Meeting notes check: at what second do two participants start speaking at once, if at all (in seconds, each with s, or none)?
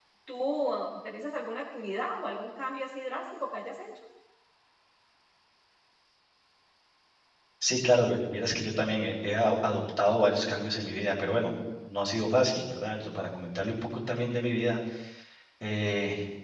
none